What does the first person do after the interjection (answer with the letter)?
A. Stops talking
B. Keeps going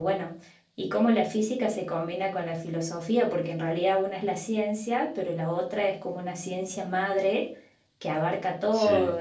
B